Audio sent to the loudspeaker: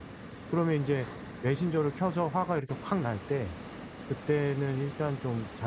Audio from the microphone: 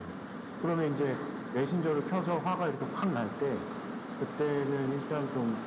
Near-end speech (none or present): none